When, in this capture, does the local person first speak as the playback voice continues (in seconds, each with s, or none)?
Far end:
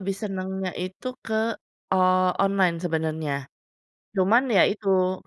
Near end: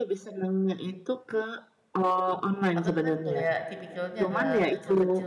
2.8 s